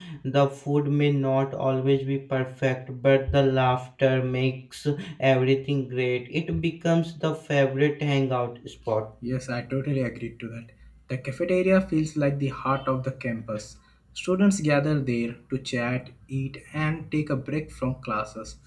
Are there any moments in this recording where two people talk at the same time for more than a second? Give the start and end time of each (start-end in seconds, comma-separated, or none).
none